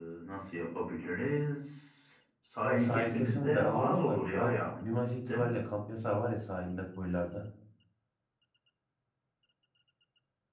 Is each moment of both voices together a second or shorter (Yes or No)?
No